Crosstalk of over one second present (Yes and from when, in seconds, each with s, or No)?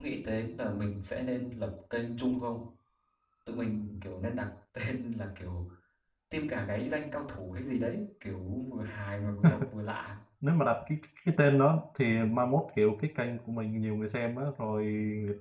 No